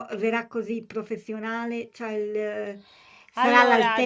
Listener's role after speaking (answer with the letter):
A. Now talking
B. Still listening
B